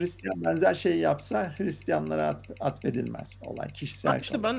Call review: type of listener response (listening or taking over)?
taking over